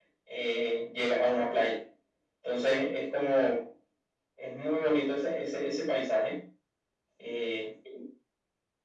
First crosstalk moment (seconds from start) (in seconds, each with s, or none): none